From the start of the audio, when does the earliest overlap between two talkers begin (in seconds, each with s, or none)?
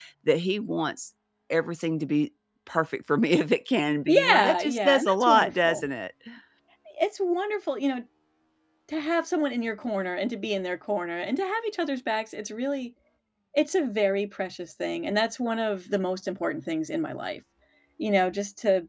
4.1 s